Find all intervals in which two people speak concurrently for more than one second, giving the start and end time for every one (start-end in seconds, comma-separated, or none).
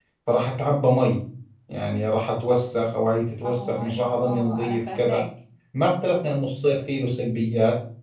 3.4-5.2